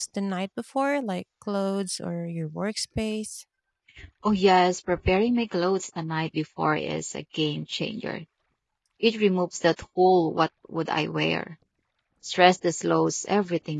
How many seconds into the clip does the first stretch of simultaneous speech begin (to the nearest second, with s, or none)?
none